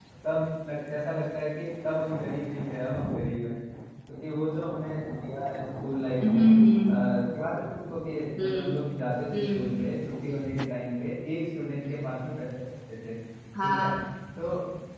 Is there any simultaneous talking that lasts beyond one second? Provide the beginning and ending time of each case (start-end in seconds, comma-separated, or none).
none